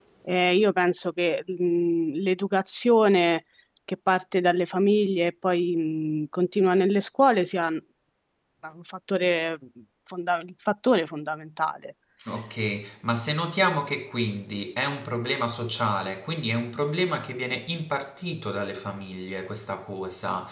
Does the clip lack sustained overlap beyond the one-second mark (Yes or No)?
Yes